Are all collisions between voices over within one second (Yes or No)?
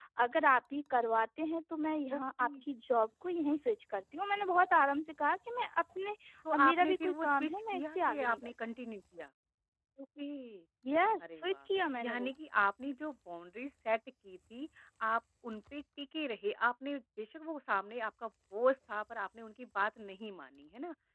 No